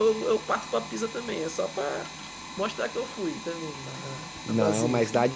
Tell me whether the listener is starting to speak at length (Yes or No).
Yes